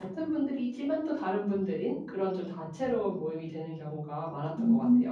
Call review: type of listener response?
taking over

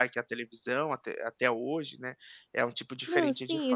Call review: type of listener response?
taking over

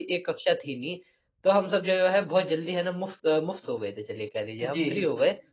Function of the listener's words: listening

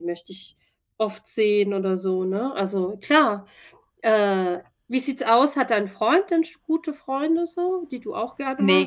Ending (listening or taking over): taking over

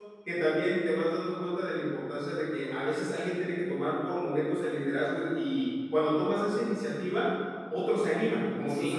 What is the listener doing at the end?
taking over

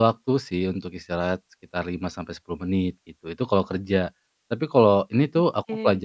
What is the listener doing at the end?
listening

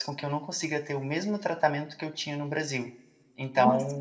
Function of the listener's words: taking over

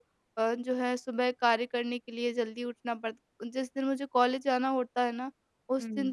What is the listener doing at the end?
listening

